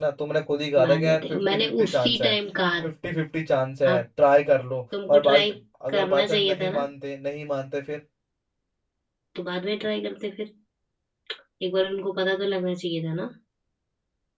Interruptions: present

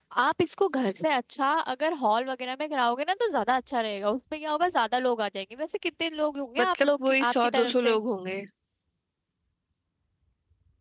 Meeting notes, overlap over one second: present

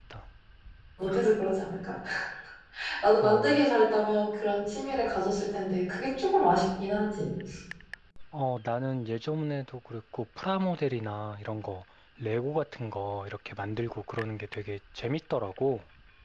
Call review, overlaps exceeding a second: none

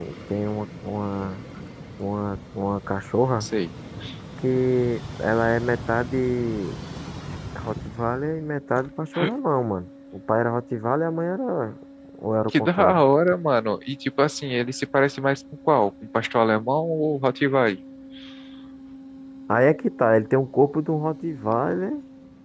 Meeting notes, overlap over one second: none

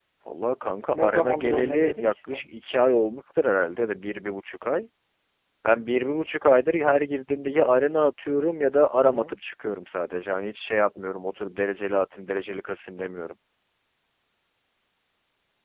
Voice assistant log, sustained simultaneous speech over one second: present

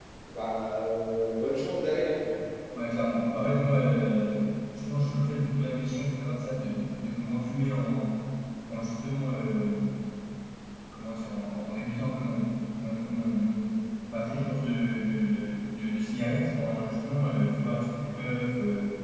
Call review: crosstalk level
none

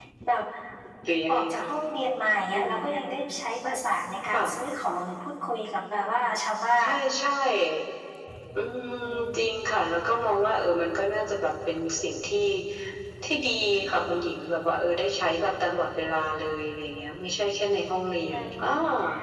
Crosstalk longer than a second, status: none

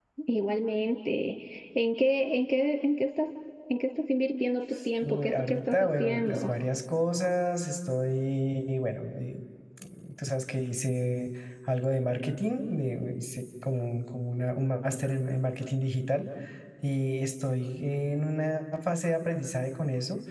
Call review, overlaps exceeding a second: present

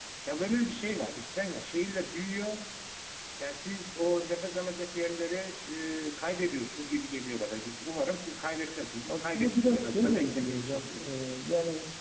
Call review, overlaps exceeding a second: present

